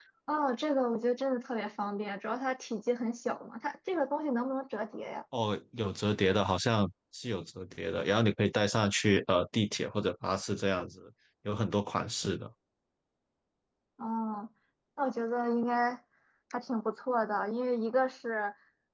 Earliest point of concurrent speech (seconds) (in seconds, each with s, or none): none